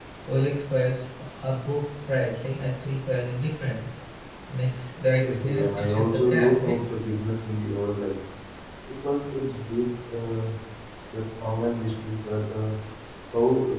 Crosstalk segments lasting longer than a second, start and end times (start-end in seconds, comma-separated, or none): 5.2-6.8